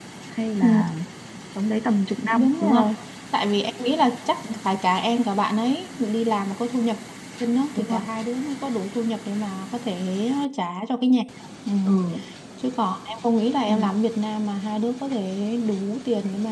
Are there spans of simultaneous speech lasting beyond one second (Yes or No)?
No